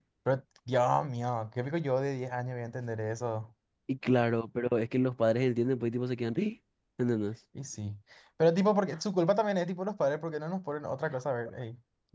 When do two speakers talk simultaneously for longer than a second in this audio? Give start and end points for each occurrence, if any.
none

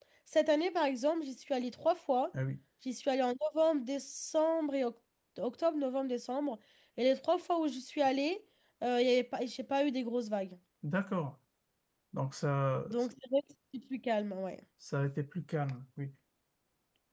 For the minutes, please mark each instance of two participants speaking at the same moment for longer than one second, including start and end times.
none

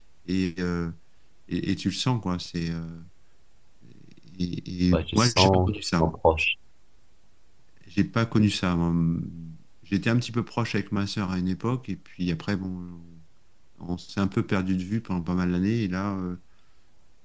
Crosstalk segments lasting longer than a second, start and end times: 4.9-6.1

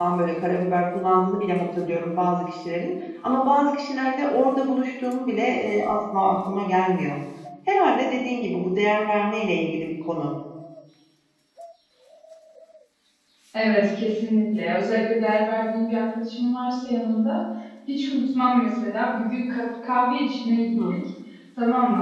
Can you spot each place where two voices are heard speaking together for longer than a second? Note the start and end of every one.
none

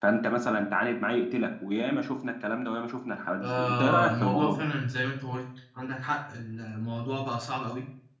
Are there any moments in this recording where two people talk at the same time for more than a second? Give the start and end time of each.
3.4-4.6

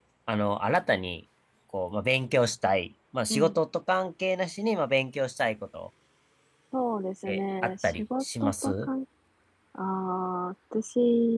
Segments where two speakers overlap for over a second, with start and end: 7.3-8.9

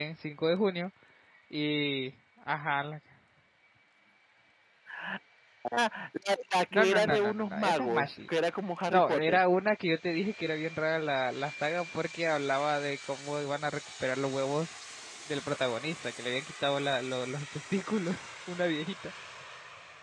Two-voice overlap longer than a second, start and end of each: 6.7-8.1

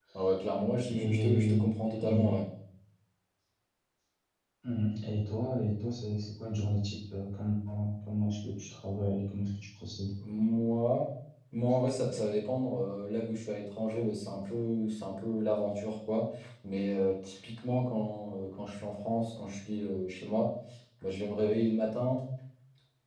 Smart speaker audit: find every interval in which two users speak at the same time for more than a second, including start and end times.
0.9-2.3

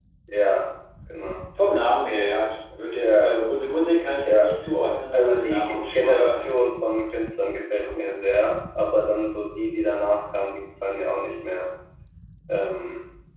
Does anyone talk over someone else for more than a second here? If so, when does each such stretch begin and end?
5.1-6.4

